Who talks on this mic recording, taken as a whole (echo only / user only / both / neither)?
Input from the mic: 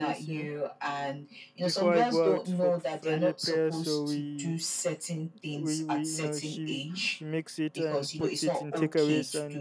both